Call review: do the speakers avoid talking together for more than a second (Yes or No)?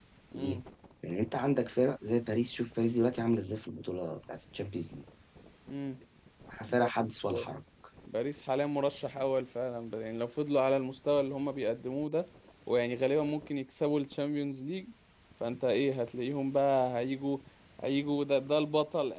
Yes